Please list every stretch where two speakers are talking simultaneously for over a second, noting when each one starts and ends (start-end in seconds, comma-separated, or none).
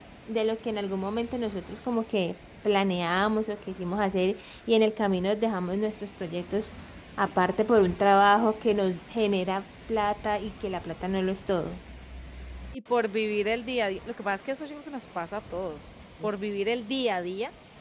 none